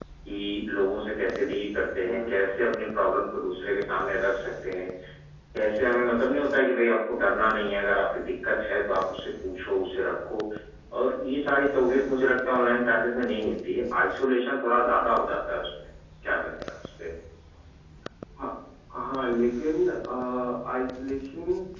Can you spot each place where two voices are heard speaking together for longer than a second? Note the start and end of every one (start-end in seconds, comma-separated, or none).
none